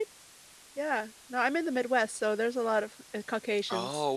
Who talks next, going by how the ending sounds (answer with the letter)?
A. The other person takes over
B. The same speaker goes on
A